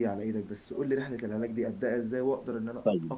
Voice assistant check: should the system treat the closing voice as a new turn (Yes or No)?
Yes